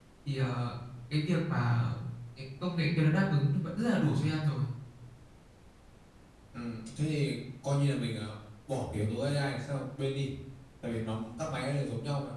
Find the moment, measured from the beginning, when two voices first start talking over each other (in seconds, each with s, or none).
none